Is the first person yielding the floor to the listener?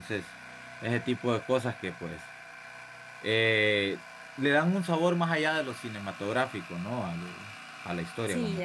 Yes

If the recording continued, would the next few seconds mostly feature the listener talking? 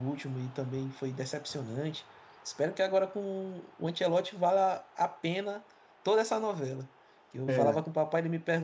No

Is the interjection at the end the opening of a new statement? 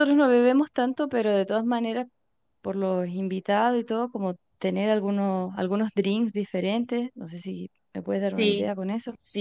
Yes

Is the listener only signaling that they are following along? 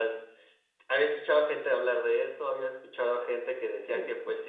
Yes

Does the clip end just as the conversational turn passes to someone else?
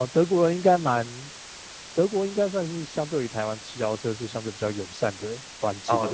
Yes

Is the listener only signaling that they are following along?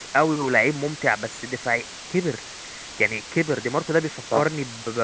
Yes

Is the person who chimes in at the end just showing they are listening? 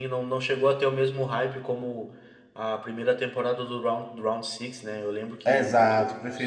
No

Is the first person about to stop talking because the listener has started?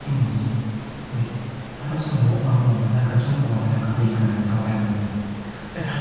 No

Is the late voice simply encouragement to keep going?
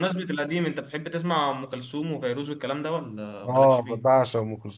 No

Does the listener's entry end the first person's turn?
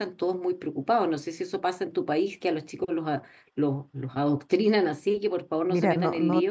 Yes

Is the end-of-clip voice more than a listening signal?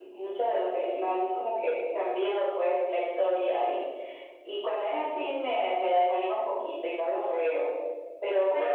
No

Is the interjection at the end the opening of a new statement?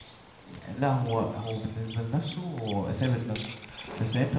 No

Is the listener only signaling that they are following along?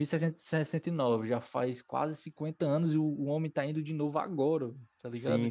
No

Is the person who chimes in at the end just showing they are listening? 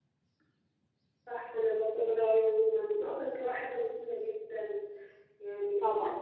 Yes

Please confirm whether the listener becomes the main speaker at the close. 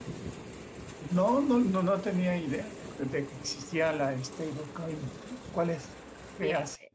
Yes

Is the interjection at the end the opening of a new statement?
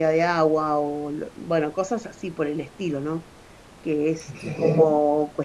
No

